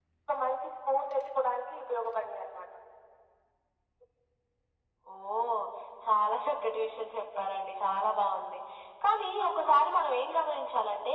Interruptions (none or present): none